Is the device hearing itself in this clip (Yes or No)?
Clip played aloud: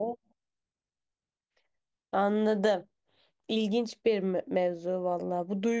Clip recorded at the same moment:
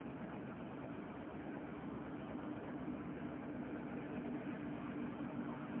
No